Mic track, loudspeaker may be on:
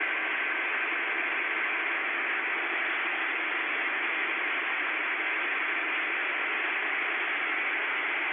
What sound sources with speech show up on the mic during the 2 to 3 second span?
neither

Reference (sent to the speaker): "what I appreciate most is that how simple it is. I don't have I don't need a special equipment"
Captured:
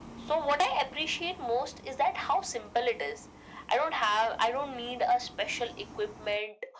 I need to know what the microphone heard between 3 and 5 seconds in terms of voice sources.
echo only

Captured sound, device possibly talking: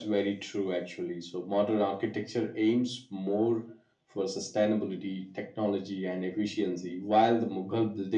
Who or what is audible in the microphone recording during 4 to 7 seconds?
echo only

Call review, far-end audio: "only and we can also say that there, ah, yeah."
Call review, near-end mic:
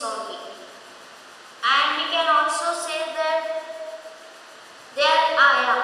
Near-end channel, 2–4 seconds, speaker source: echo only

